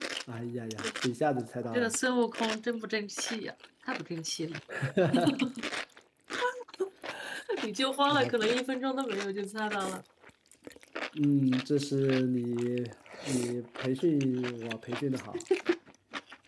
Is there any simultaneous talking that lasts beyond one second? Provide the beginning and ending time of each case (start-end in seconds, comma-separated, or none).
none